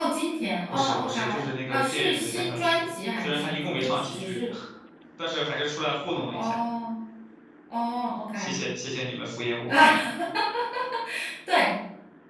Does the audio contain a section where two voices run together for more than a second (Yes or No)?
Yes